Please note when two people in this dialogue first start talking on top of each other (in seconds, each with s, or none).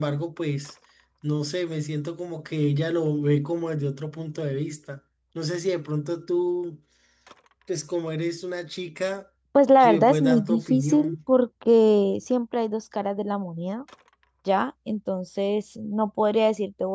9.8 s